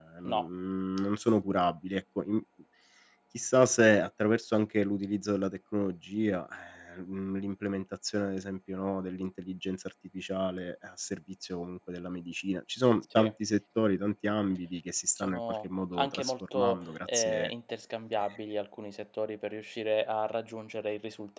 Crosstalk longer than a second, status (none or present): present